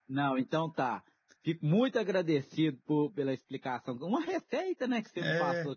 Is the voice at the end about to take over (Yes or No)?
Yes